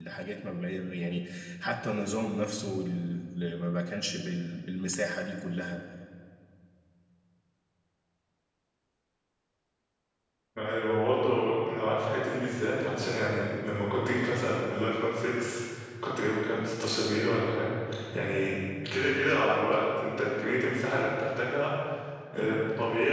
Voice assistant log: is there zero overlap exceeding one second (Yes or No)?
Yes